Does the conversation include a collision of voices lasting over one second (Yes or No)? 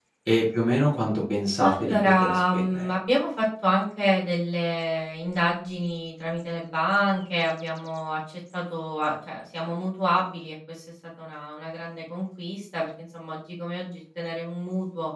Yes